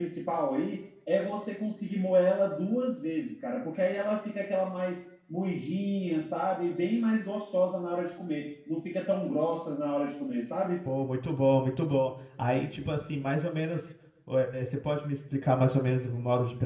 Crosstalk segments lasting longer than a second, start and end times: none

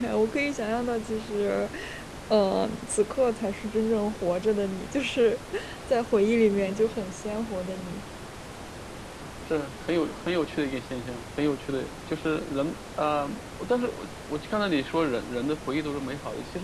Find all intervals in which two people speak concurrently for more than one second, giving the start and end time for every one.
none

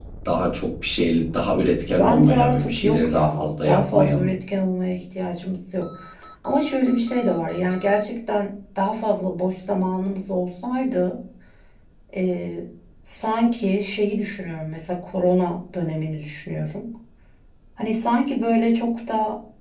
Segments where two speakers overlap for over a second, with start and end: 2.0-4.3

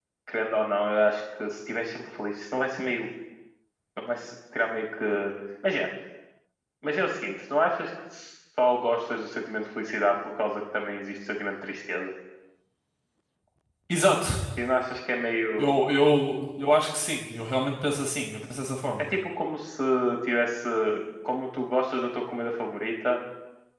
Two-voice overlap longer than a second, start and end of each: none

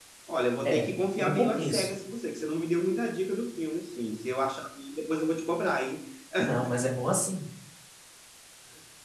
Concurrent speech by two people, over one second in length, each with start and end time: 0.6-1.9

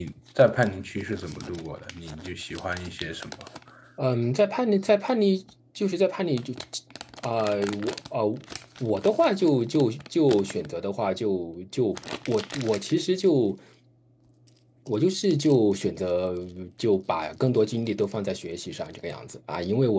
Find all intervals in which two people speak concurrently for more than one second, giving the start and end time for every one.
none

